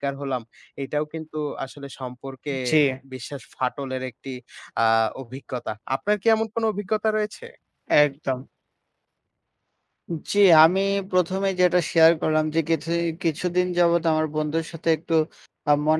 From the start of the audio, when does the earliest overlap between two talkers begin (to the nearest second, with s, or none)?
none